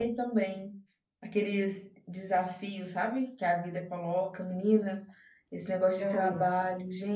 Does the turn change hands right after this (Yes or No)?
No